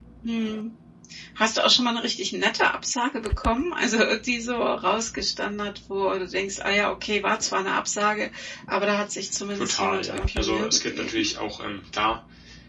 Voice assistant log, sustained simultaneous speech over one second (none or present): present